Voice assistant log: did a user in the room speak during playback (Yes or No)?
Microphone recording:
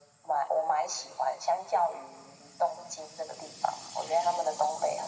No